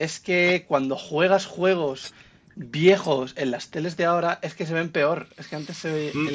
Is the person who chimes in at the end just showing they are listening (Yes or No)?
Yes